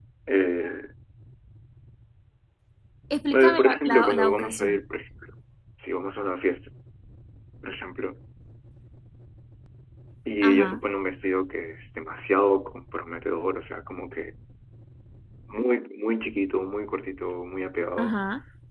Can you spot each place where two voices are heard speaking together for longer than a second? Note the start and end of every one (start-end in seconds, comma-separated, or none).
3.3-4.8